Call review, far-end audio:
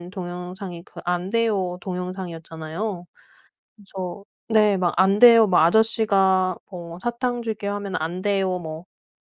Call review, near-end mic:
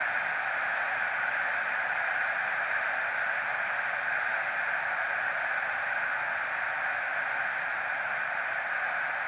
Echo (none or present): none